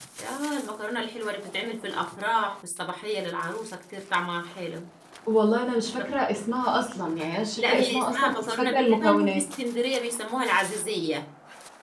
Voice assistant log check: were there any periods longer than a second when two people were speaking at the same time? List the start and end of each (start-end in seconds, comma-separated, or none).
7.6-9.4